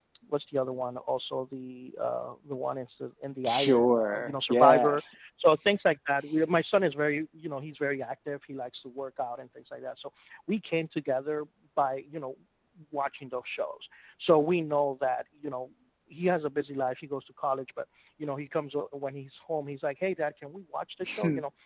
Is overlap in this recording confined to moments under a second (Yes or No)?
No